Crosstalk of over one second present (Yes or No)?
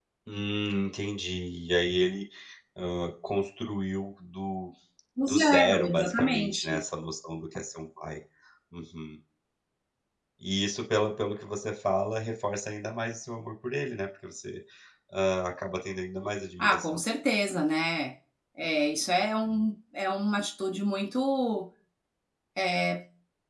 Yes